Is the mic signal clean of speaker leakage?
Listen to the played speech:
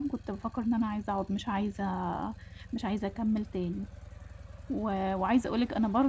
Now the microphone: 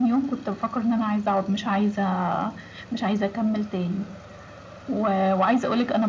No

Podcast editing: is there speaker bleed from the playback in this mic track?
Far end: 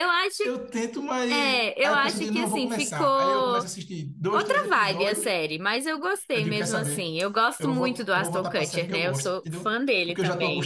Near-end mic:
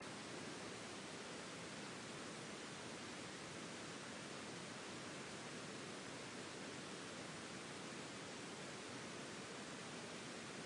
No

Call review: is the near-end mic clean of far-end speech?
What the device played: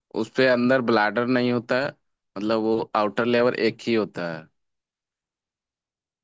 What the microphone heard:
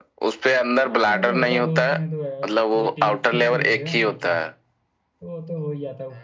No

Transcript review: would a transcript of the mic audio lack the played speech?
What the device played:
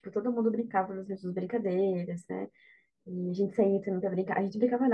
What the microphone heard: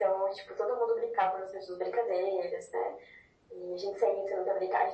No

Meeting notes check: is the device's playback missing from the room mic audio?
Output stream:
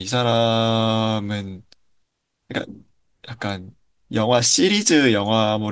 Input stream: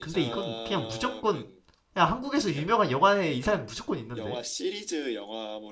No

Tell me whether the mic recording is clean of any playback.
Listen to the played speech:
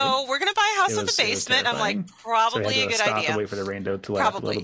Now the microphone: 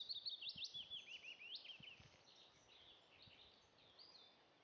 Yes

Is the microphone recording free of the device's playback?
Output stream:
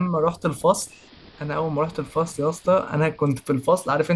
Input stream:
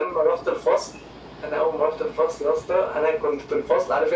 No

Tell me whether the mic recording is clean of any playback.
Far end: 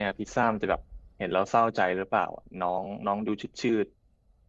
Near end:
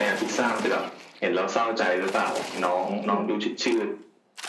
No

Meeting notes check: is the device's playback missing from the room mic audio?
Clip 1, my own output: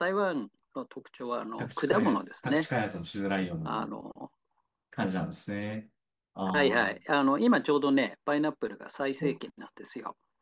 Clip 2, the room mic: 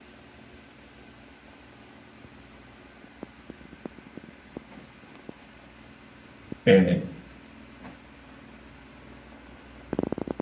Yes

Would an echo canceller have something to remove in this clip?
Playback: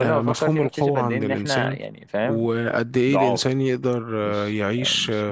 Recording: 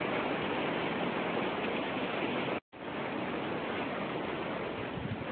No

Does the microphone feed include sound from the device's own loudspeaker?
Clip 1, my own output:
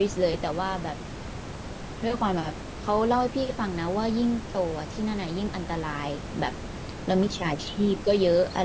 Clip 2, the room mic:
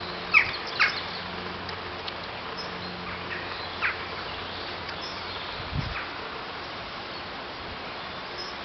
No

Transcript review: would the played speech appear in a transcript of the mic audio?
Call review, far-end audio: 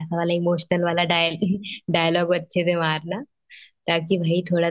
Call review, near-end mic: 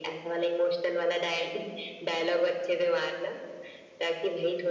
Yes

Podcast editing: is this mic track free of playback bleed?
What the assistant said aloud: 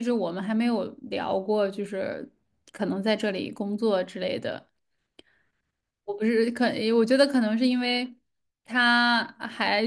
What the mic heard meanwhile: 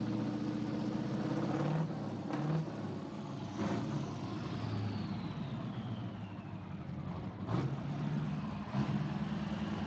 Yes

